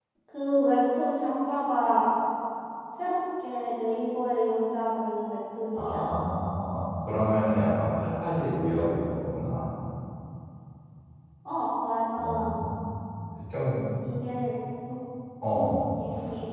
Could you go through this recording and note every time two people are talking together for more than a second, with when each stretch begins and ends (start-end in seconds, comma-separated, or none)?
none